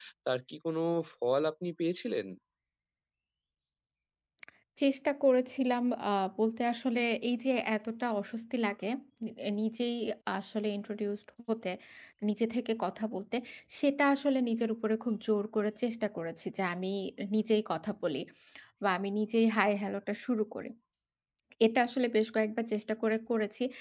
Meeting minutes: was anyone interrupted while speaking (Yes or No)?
No